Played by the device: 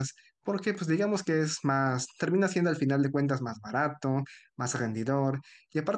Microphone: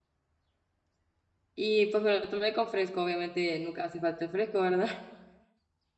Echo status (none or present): none